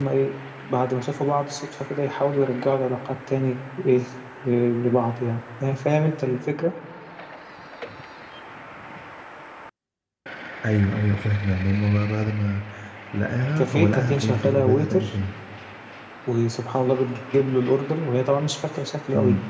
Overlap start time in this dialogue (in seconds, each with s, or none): 13.6 s